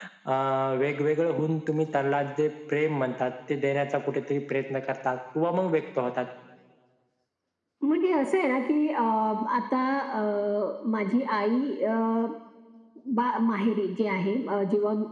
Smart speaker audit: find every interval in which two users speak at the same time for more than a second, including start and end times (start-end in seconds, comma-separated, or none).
none